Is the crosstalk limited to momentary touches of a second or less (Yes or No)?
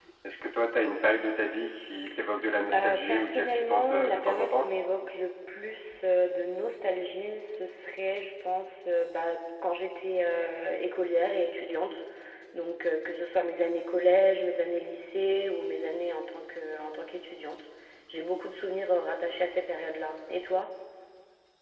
No